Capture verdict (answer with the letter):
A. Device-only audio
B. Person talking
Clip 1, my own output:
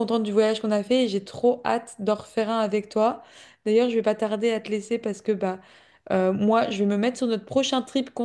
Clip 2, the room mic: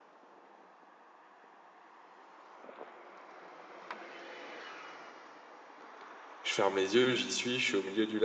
B